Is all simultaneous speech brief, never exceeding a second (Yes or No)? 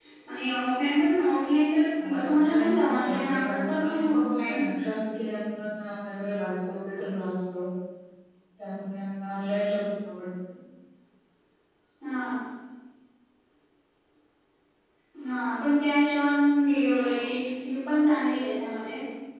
No